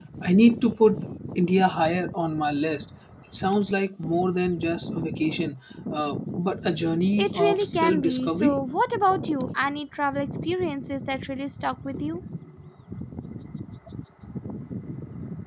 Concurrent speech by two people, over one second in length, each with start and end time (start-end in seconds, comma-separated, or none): 7.2-8.6